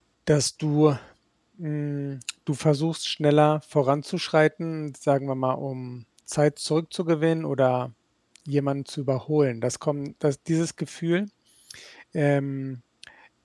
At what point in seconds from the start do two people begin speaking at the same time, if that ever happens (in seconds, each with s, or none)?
none